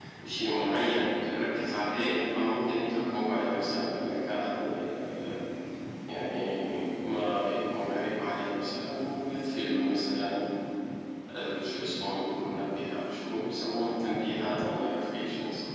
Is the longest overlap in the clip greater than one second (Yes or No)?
No